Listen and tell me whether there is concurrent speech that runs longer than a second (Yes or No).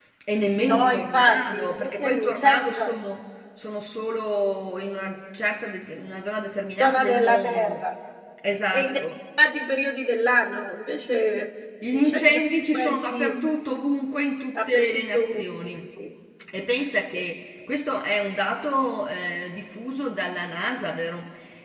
Yes